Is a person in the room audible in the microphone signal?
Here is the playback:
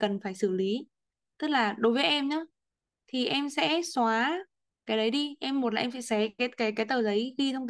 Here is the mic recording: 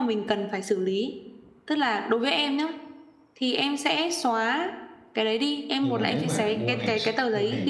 Yes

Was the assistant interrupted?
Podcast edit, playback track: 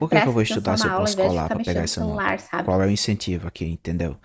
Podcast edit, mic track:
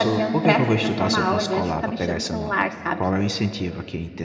No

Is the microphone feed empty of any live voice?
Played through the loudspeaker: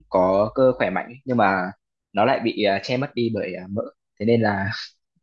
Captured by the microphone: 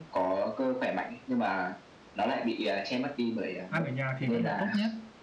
No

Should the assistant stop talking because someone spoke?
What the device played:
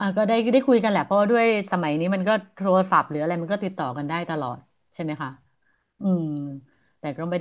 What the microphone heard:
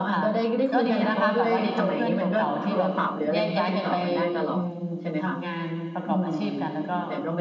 Yes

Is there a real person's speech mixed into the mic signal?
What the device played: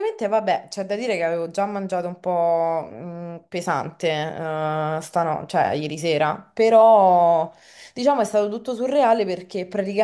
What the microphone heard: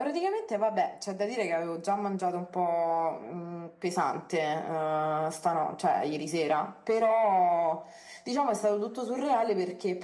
No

